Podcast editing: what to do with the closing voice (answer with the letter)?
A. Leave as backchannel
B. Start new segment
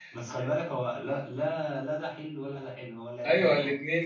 B